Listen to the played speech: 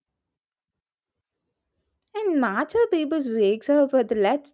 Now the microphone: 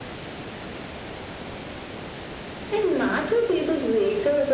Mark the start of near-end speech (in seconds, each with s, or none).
none